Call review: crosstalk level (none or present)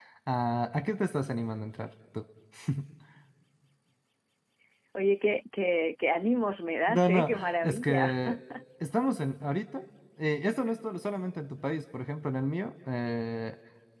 present